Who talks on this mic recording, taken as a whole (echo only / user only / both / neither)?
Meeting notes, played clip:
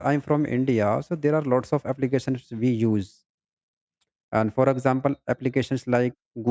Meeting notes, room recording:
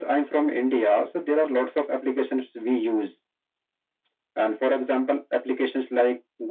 echo only